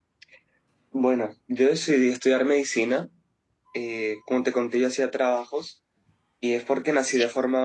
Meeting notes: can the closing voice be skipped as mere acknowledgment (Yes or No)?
Yes